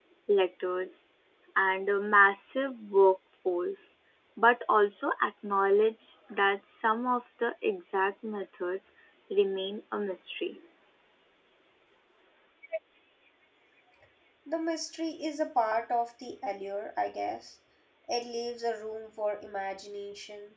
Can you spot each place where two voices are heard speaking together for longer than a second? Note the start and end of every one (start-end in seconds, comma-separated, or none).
none